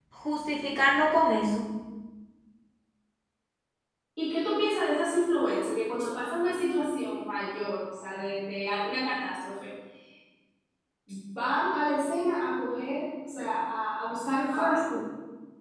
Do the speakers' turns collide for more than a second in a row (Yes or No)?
No